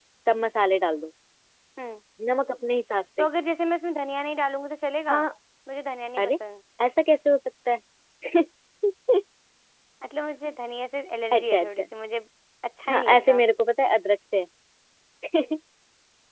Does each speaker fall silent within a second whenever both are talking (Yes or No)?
Yes